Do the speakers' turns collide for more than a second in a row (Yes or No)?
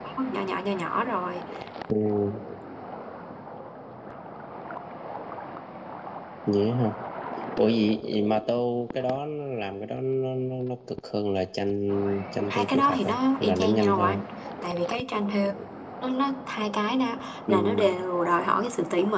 Yes